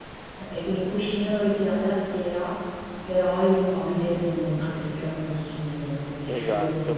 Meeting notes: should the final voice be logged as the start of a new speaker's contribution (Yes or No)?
Yes